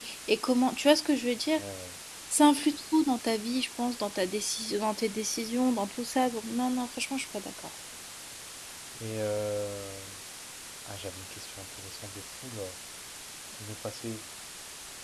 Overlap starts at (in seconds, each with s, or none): none